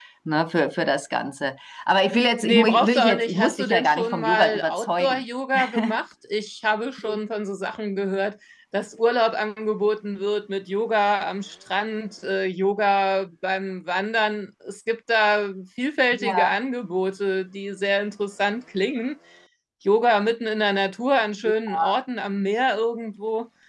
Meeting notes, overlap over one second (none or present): present